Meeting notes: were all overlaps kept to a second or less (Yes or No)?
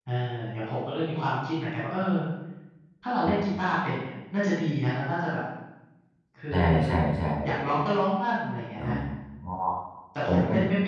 Yes